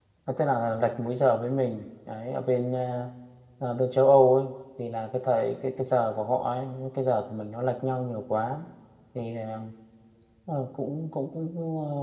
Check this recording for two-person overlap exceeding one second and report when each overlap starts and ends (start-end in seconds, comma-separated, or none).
none